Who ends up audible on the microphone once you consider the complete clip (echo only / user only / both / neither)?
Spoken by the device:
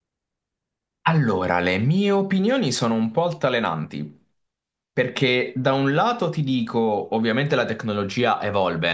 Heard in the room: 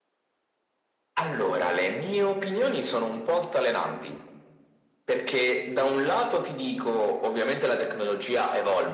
echo only